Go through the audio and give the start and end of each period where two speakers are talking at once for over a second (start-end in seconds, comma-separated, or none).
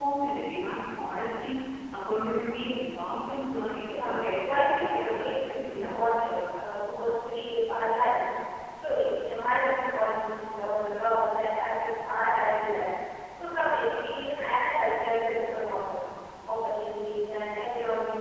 3.9-5.2